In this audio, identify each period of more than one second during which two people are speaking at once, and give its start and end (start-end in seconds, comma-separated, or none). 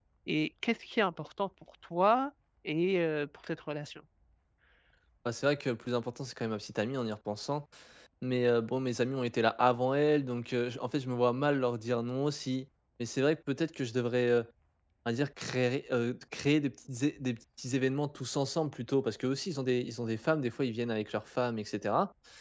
none